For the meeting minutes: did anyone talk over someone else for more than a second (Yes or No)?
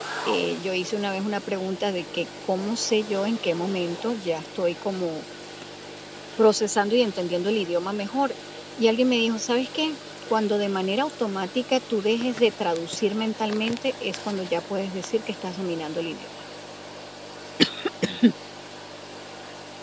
No